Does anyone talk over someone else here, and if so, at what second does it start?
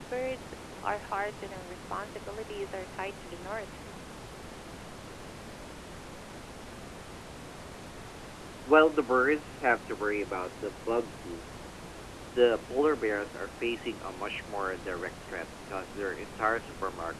none

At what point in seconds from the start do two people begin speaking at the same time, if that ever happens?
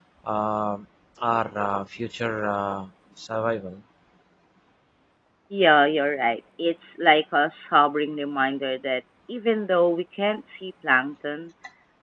none

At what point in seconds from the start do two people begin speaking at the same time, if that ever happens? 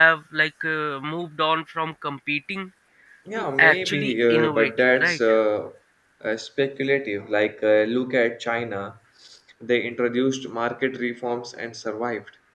3.4 s

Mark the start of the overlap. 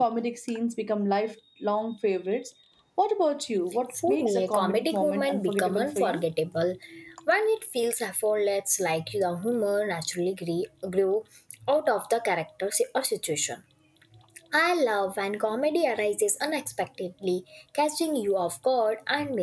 3.9 s

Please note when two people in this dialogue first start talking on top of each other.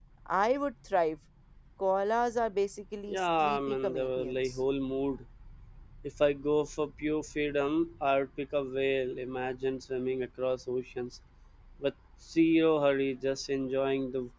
3.1 s

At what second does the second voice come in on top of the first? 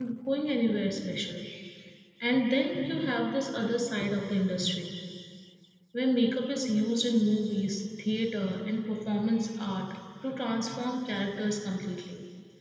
none

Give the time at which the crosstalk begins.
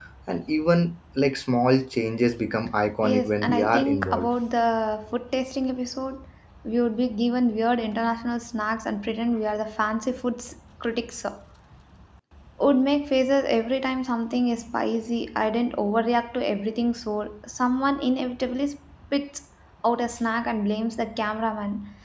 3.0 s

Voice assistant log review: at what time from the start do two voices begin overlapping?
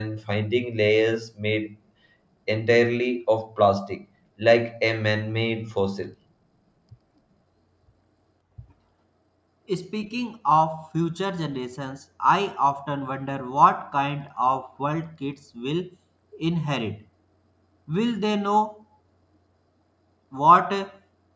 none

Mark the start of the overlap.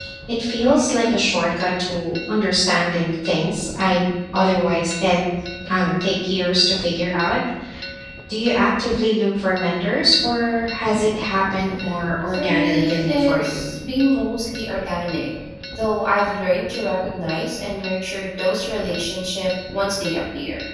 12.3 s

